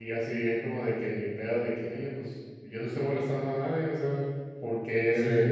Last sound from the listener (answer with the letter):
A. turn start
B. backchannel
B